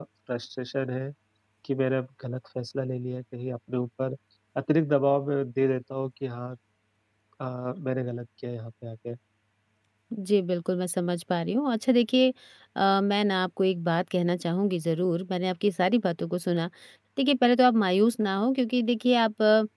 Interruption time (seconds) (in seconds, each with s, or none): none